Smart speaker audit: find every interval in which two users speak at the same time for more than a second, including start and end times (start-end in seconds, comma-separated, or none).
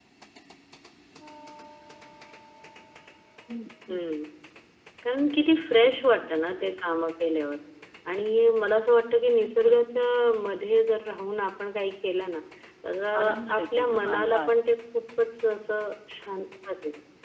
13.2-14.5